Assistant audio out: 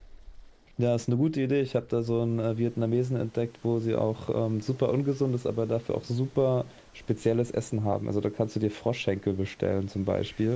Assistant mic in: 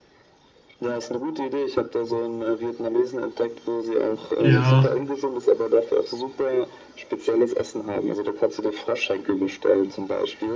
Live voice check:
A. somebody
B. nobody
A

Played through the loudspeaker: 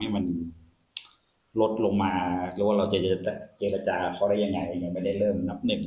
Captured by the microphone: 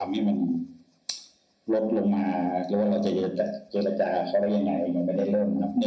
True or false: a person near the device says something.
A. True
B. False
B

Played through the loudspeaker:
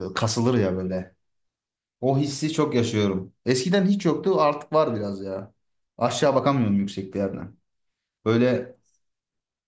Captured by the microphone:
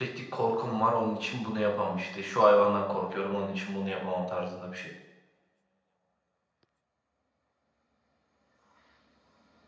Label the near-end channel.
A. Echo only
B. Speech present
B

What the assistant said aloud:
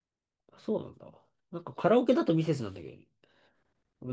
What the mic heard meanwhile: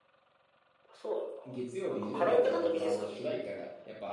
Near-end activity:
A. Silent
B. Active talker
B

